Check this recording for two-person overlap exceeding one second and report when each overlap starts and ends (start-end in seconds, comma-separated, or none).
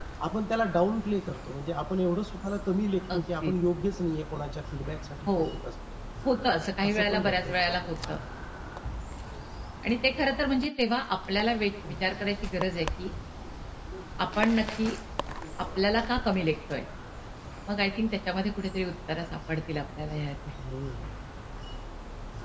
6.9-8.2